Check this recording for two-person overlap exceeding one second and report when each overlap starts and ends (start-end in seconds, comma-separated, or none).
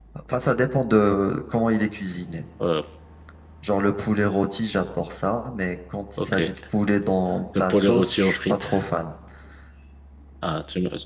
7.6-8.8